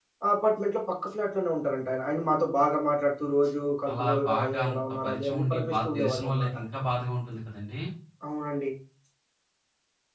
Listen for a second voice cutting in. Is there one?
Yes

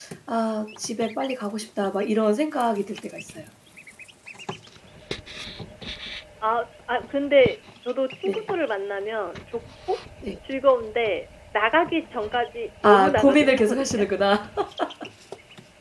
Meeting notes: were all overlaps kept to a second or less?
No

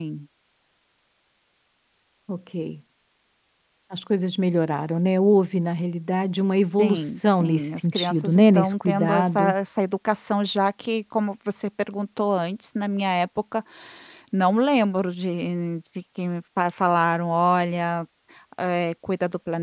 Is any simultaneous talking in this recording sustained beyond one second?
Yes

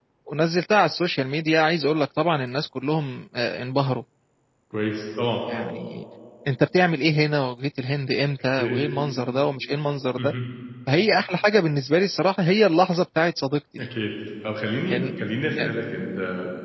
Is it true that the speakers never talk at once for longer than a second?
Yes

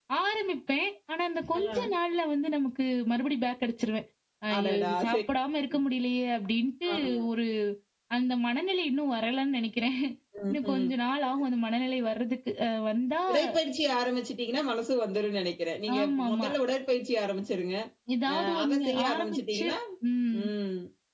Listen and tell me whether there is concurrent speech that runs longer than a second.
Yes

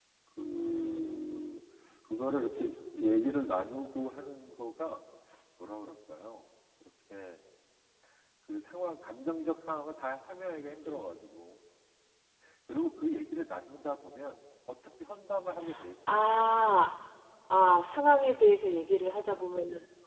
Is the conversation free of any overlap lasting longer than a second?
Yes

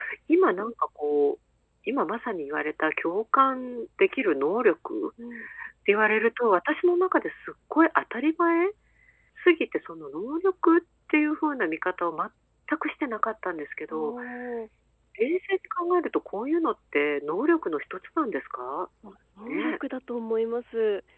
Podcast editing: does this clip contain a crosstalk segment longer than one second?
No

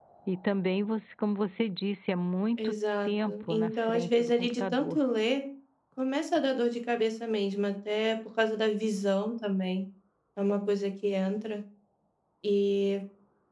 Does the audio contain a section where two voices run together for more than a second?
Yes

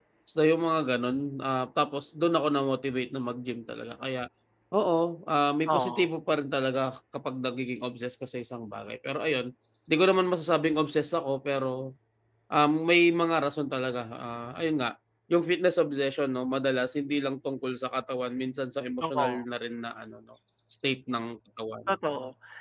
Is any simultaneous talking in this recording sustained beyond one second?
No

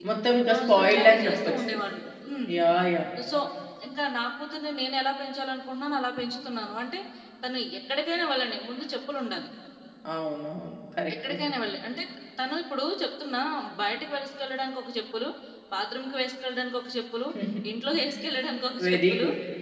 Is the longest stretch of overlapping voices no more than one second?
No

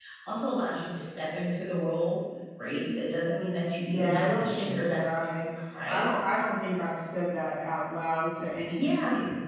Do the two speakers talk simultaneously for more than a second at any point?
Yes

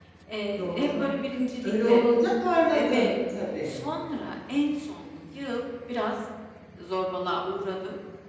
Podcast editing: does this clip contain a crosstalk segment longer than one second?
No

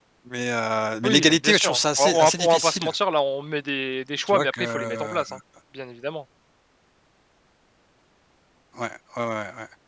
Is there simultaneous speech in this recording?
Yes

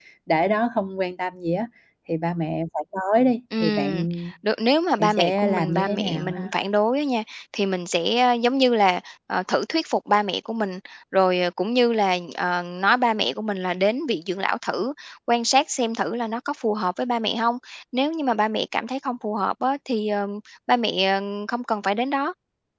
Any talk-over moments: Yes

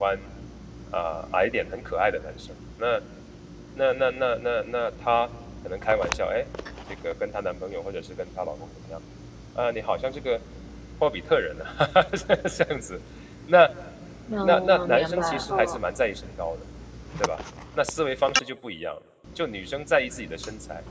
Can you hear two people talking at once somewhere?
Yes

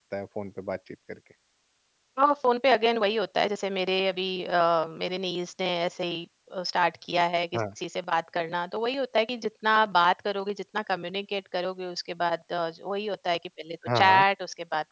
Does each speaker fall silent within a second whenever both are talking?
Yes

